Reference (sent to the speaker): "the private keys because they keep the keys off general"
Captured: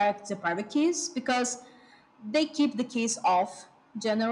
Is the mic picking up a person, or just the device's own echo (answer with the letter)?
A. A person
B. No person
B